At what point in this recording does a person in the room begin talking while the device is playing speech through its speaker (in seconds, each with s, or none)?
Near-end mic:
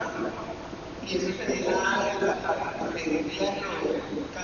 none